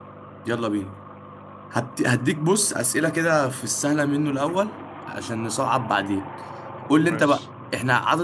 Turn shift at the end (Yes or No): No